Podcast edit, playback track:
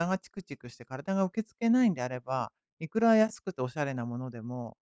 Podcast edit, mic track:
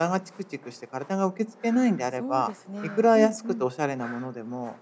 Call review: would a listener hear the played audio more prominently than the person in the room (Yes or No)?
Yes